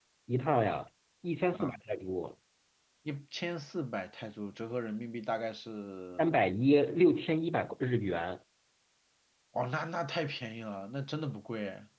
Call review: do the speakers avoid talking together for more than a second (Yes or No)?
Yes